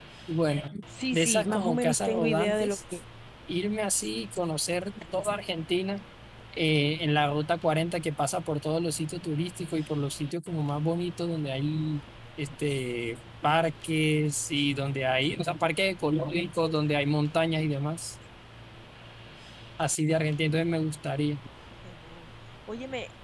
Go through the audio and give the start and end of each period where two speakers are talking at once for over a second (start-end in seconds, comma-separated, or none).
1.1-3.0